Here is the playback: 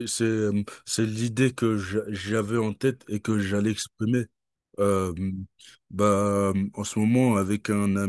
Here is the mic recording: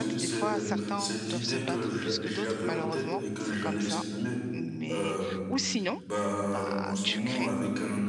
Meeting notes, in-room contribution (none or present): present